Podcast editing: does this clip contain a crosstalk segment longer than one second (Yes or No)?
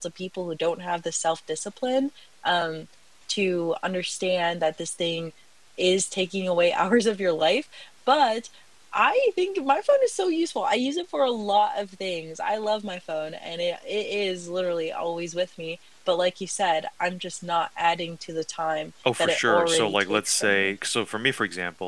Yes